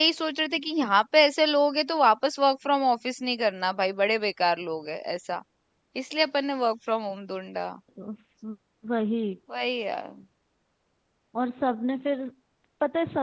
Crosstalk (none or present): none